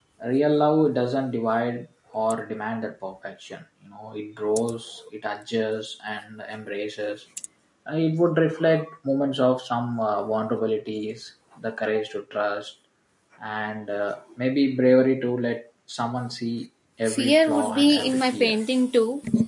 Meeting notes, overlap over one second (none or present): present